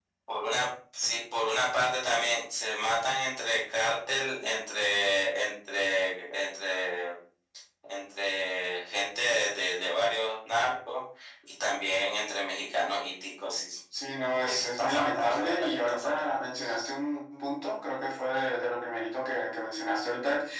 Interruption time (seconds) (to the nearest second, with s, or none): 14 s